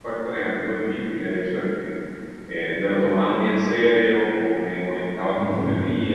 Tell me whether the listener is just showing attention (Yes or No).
Yes